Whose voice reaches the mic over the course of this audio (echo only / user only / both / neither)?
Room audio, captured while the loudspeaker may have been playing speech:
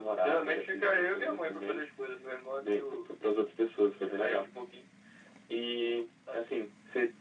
echo only